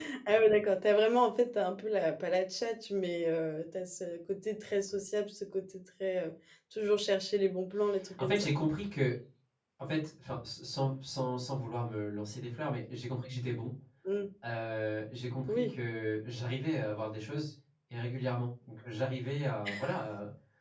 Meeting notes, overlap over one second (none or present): none